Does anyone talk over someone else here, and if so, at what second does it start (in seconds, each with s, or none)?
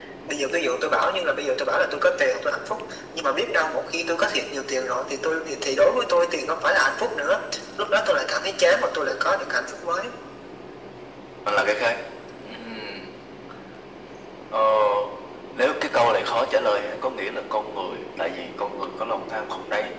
none